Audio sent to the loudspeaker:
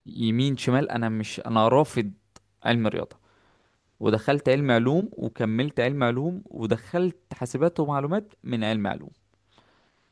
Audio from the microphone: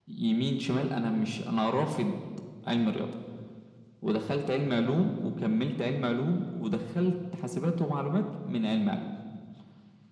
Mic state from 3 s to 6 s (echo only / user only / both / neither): echo only